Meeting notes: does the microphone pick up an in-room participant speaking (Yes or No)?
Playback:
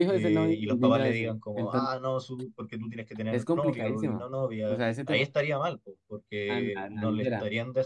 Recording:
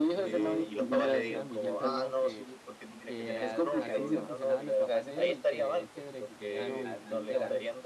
Yes